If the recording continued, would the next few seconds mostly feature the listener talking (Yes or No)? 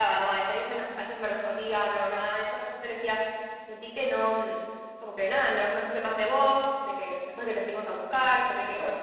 Yes